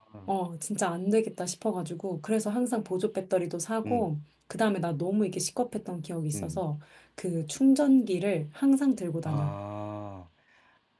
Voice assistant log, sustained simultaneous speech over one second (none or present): none